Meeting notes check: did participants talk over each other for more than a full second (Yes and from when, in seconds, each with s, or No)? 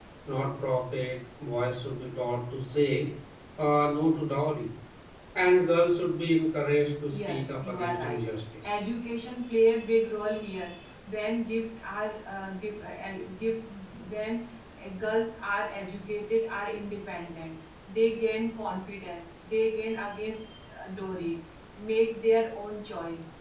Yes, from 7.1 s